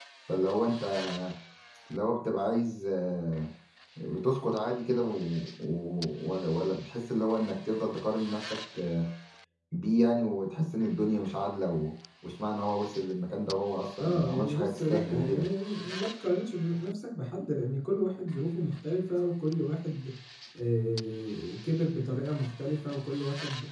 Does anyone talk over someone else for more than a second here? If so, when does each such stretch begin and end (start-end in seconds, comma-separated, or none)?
14.0-15.5